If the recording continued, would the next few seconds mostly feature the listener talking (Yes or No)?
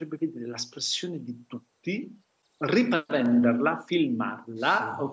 No